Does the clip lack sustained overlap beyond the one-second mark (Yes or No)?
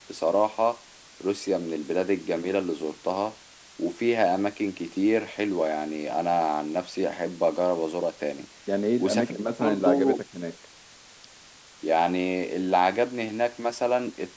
No